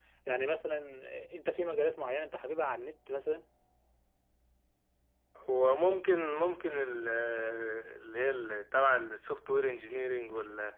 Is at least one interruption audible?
No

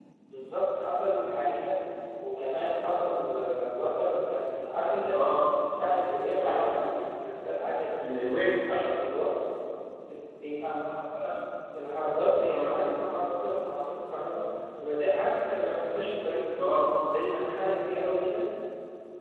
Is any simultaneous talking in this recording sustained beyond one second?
No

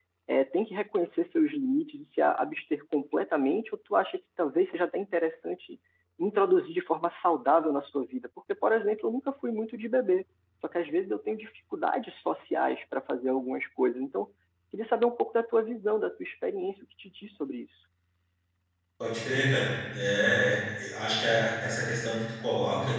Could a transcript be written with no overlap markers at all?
Yes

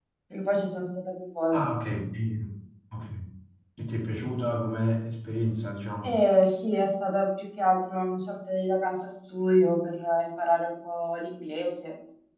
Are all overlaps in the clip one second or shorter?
Yes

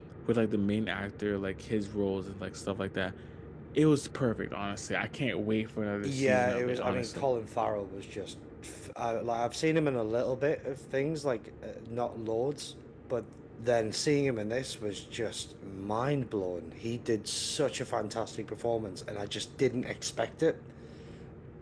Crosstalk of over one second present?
Yes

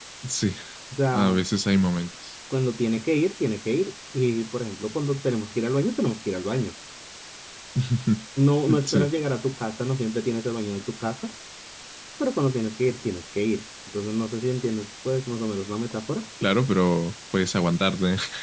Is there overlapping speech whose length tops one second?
No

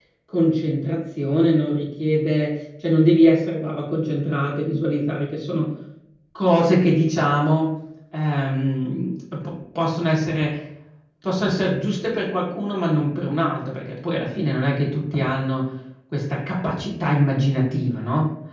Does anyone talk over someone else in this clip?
No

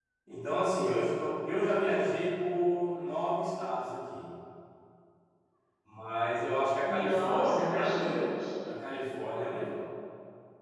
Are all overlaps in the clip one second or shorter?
No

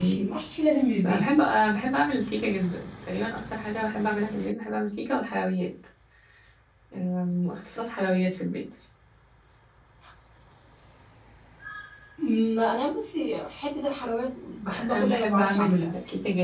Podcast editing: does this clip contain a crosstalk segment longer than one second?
Yes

